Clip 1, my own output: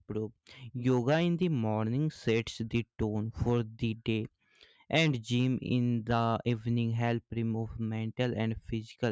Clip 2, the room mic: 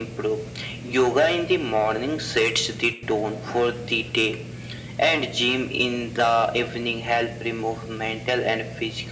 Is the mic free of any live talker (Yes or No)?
Yes